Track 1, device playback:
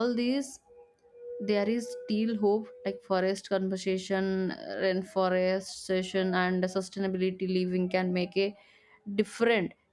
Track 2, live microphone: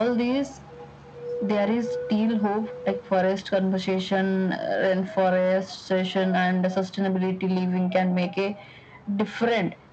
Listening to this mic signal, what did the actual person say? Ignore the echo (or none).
none